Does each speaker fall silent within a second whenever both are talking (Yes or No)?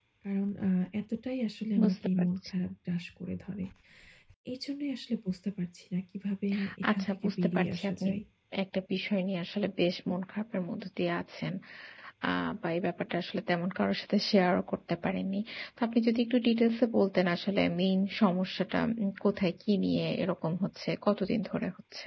No